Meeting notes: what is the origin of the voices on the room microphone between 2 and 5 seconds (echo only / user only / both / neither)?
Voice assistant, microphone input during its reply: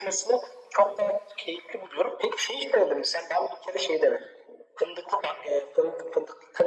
echo only